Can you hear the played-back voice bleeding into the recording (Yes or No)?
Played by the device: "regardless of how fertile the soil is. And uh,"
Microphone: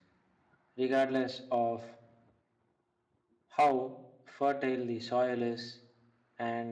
Yes